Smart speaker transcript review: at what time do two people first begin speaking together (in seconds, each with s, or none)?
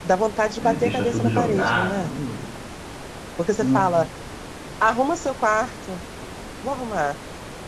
0.6 s